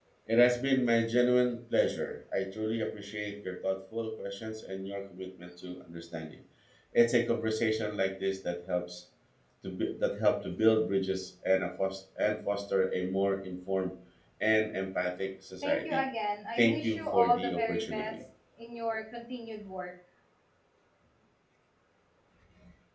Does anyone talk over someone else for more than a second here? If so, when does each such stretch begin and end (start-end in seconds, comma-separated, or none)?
16.6-18.1